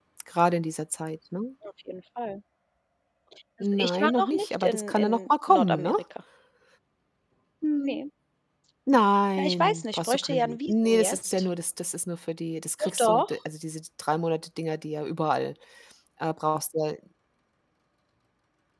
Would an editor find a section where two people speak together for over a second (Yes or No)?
Yes